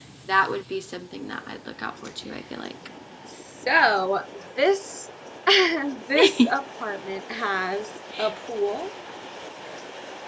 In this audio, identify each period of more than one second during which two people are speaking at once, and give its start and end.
none

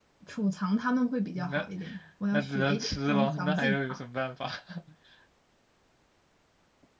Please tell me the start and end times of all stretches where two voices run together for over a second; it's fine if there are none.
2.3-4.0

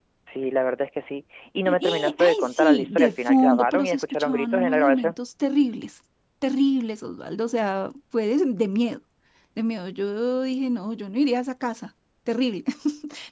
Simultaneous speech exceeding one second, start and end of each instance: 1.6-5.1

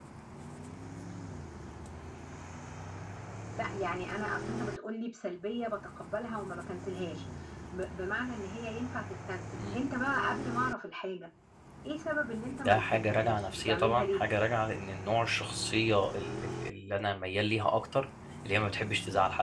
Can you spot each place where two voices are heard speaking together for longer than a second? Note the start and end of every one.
12.5-14.2

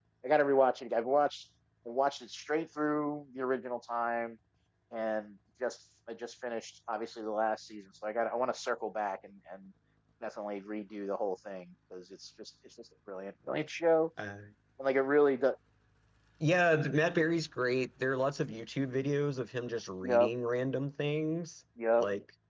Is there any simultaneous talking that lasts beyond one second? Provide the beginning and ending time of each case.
none

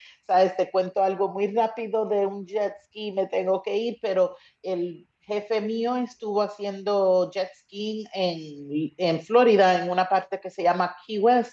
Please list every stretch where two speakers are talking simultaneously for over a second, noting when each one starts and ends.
none

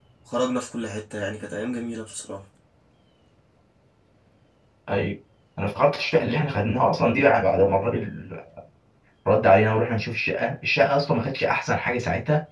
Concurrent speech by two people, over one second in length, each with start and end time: none

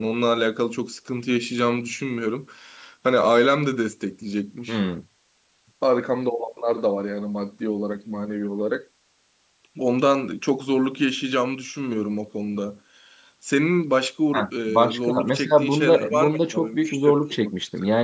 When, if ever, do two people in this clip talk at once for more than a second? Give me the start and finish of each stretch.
14.3-17.5

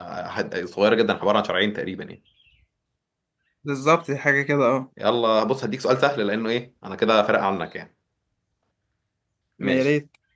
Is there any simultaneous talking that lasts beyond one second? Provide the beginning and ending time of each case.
none

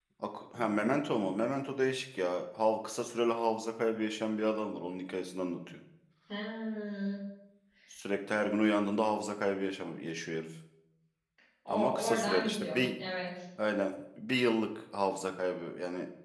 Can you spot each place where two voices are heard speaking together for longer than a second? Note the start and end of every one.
11.7-12.9

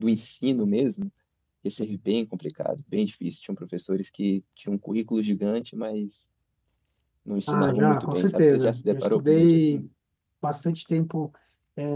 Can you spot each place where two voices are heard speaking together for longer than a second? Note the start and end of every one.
7.5-9.8

